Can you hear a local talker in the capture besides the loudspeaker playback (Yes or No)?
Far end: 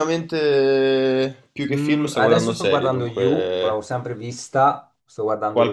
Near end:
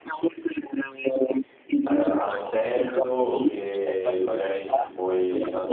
Yes